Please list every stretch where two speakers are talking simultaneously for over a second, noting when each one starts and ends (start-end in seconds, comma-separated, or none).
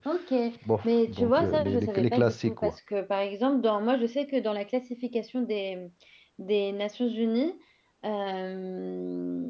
0.8-2.8